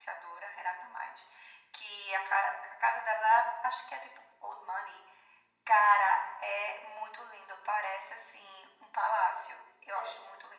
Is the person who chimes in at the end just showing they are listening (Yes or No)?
No